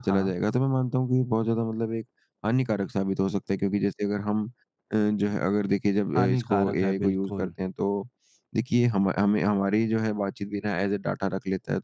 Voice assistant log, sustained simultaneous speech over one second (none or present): present